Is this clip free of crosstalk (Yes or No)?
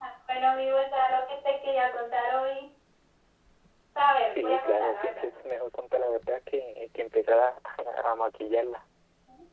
No